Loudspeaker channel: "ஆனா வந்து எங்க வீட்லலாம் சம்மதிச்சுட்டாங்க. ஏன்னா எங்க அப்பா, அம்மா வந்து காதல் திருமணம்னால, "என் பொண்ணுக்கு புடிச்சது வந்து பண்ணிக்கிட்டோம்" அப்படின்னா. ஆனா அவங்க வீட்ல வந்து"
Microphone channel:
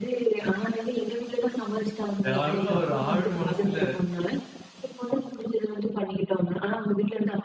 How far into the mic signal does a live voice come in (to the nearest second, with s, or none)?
2 s